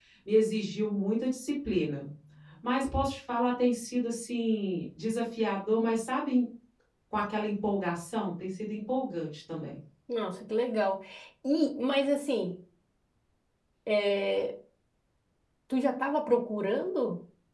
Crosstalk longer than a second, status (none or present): none